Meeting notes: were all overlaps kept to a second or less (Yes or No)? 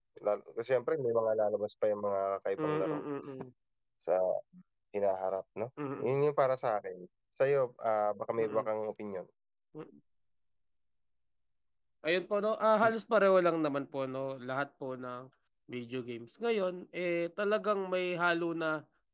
Yes